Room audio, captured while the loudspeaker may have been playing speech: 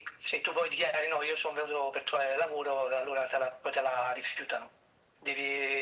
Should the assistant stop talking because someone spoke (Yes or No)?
No